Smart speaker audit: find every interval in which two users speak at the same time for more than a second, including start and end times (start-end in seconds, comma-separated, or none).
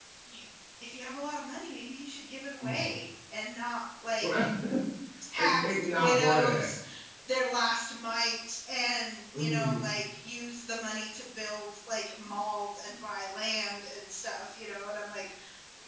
5.4-6.7